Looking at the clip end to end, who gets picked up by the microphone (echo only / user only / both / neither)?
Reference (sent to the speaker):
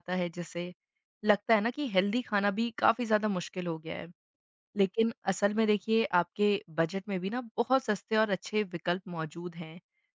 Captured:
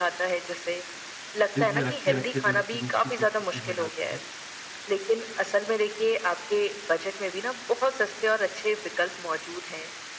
both